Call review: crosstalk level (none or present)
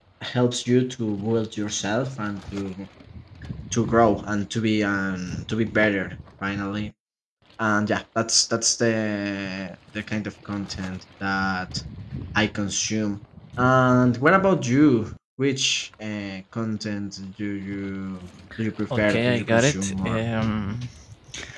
present